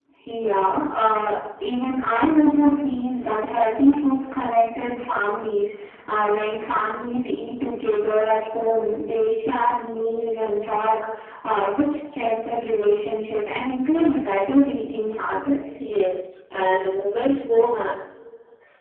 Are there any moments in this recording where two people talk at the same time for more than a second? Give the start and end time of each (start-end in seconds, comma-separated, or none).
none